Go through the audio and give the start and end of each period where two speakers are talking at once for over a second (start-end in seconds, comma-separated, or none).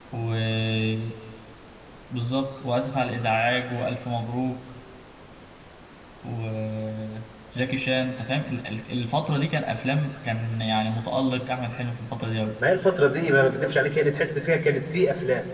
none